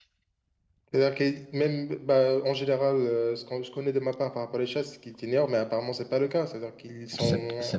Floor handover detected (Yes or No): Yes